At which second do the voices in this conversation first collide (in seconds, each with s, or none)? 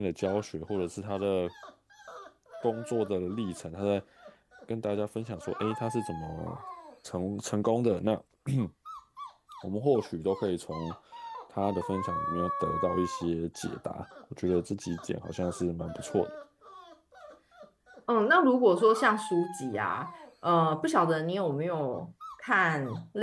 none